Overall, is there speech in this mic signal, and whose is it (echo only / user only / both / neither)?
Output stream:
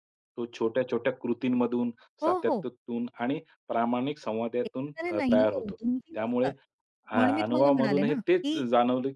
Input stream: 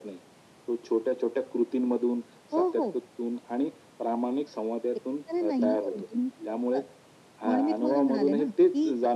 echo only